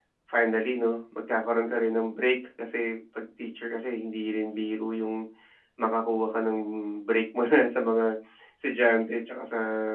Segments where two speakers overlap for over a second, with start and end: none

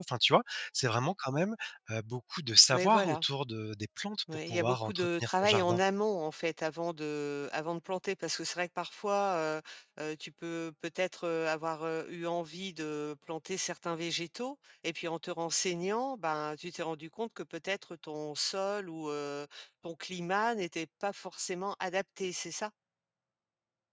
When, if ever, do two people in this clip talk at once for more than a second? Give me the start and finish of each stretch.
4.5-5.8

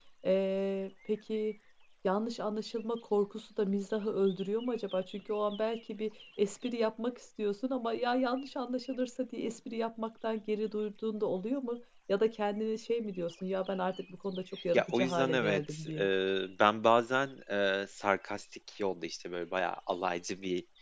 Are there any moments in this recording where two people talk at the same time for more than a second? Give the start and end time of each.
14.7-16.1

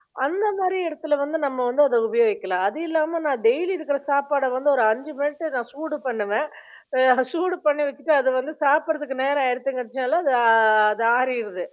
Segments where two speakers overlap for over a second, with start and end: none

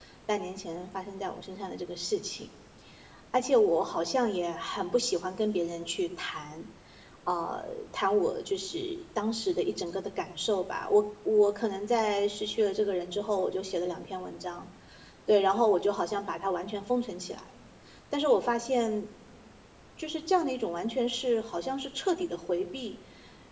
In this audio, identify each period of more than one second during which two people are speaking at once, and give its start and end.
none

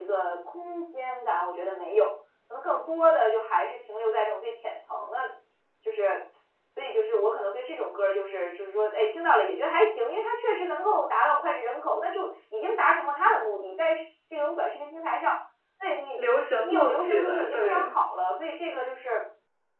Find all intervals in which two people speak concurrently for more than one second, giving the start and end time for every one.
16.6-17.9

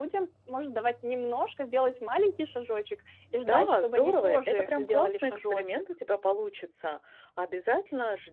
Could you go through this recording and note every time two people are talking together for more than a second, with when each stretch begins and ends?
3.3-5.8

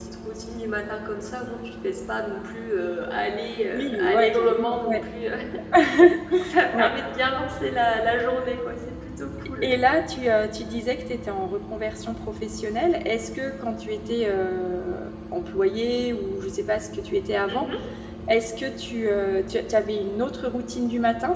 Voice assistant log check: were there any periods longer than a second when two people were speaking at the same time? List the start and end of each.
3.7-5.0

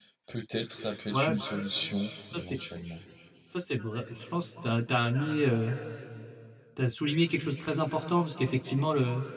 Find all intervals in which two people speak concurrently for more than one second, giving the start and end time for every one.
none

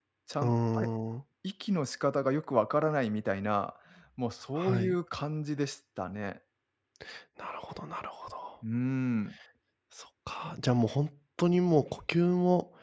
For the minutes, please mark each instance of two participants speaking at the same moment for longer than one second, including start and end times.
none

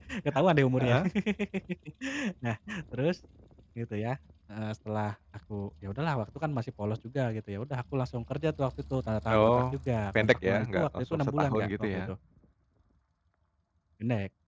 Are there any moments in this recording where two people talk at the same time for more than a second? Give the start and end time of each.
10.2-12.1

